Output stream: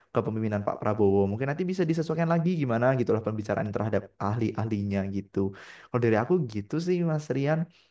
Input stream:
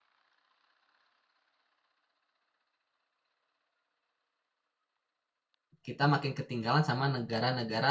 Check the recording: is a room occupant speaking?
Yes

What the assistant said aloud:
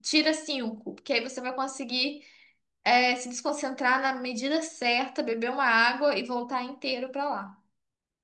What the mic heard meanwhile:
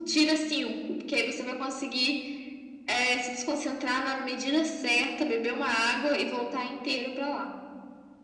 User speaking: No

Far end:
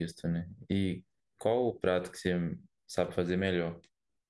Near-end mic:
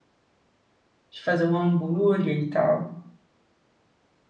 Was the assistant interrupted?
Yes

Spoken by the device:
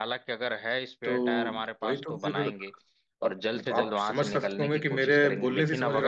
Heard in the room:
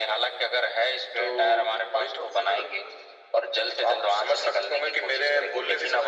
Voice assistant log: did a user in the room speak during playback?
No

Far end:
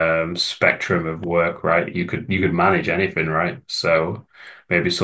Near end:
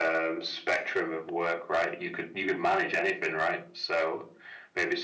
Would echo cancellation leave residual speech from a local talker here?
No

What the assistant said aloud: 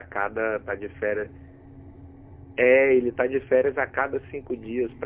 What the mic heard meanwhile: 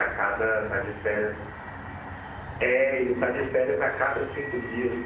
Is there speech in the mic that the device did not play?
No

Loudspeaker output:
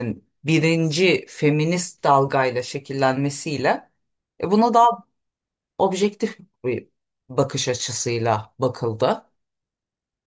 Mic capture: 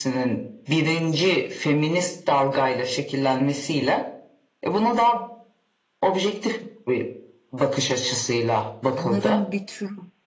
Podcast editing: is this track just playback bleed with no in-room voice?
No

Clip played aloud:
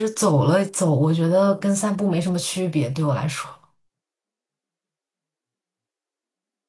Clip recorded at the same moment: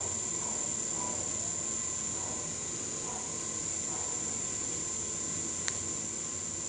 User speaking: No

